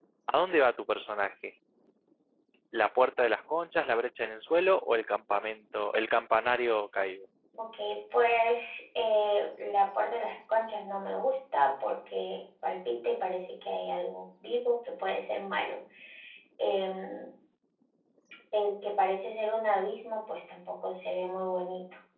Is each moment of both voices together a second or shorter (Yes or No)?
Yes